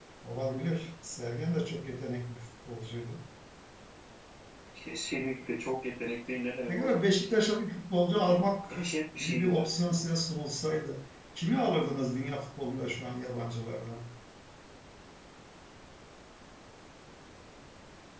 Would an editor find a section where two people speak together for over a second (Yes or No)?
No